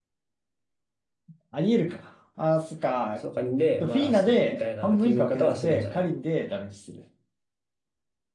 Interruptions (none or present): present